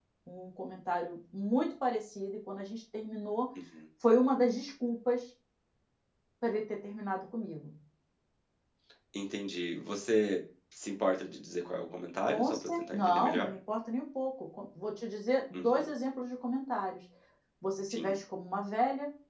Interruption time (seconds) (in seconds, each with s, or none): 12.2 s